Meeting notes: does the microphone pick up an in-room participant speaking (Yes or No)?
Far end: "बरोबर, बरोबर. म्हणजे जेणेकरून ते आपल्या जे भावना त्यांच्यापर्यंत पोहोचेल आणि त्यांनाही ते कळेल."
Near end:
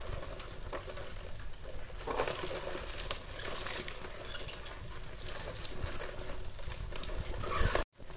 No